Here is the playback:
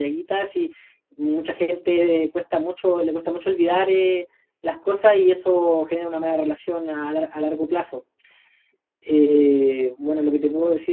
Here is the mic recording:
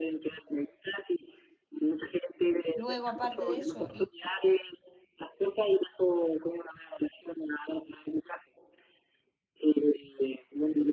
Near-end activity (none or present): present